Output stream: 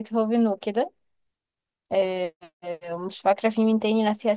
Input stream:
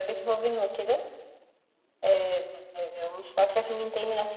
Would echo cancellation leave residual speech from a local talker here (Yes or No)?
No